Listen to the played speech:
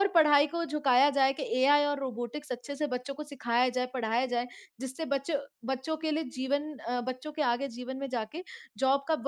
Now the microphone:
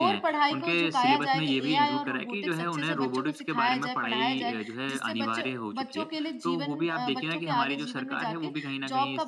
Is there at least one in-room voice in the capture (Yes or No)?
Yes